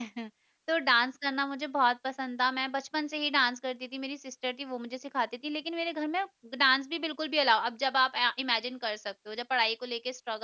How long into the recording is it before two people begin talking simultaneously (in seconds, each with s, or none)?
none